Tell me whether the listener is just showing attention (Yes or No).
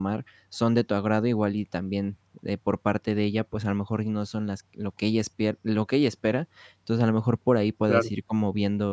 Yes